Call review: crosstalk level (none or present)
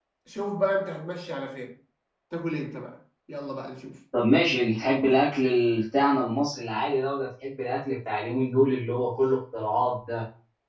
none